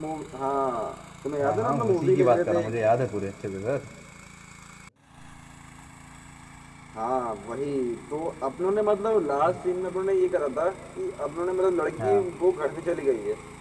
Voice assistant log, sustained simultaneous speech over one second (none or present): present